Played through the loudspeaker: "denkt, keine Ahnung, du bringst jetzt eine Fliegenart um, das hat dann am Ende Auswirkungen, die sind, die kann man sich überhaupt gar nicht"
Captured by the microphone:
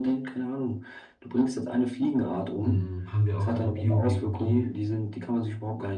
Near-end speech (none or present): present